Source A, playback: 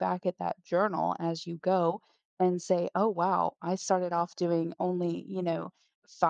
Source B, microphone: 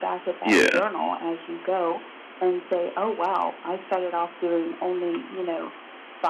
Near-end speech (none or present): present